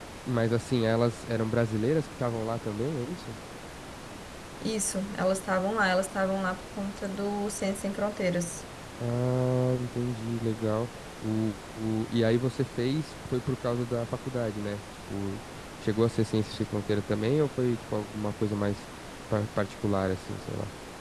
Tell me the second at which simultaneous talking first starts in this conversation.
none

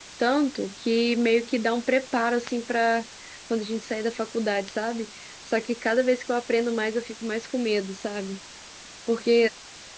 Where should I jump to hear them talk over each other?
none

